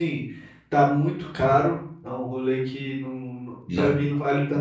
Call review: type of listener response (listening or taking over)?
listening